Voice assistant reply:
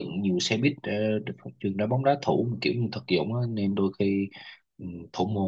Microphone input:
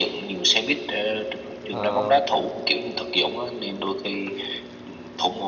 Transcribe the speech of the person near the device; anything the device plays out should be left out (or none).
Ờ,